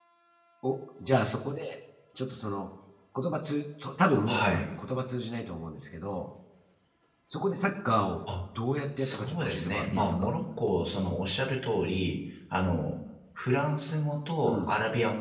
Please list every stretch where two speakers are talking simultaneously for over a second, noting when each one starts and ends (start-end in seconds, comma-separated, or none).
9.0-10.3